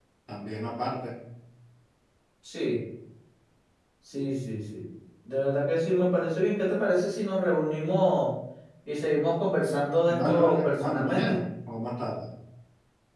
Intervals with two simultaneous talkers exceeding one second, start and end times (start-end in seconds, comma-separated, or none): 10.1-11.4